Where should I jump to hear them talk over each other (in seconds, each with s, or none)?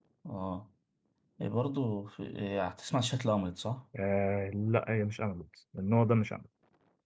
none